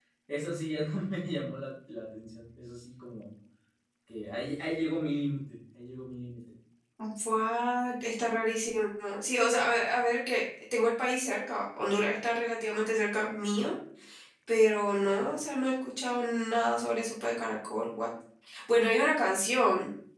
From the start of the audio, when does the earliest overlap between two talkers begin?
none

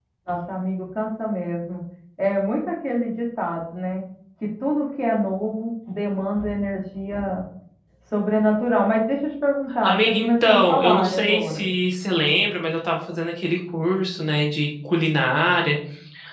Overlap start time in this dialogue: 10 s

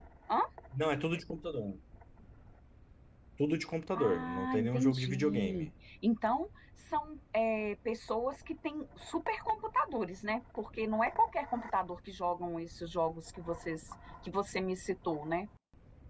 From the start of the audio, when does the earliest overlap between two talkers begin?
4 s

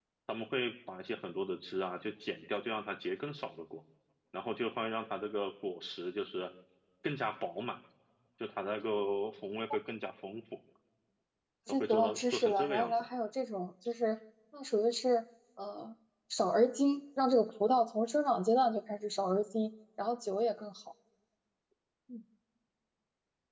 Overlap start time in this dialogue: 12 s

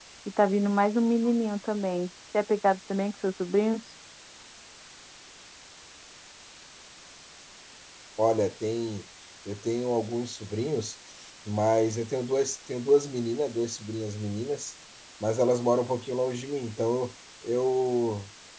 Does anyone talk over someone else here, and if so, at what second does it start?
none

